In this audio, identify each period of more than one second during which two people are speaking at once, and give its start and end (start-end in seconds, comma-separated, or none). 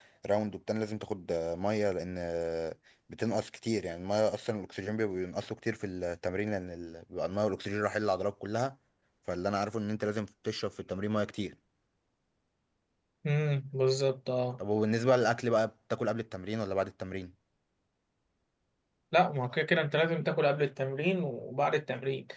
none